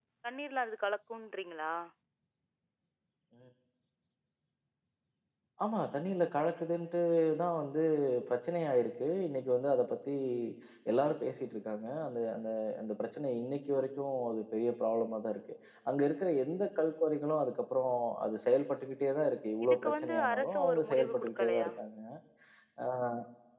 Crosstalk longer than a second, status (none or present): present